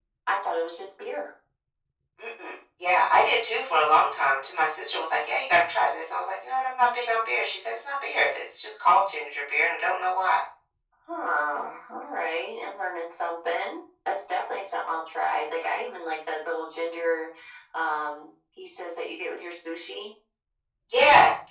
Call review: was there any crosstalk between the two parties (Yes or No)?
No